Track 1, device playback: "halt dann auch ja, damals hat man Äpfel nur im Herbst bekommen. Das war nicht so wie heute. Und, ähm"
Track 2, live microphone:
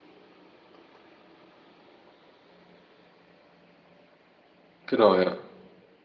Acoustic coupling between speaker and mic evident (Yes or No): No